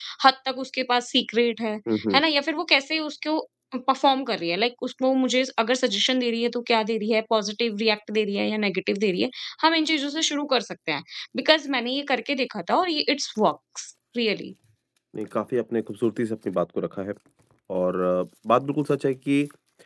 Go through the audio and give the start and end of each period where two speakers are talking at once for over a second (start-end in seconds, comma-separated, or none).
none